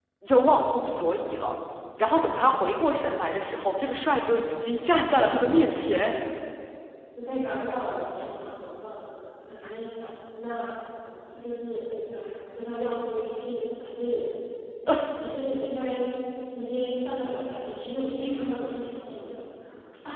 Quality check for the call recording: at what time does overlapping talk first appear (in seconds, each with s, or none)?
none